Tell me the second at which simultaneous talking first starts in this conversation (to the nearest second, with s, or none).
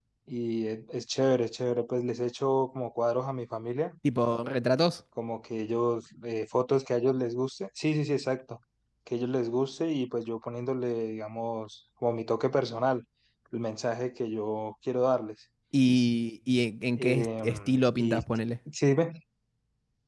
17 s